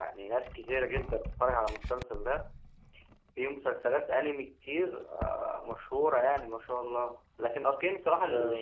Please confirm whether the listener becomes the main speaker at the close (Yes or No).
No